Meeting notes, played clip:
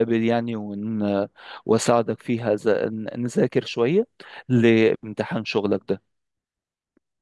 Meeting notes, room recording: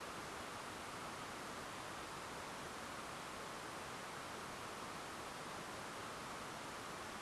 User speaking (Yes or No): No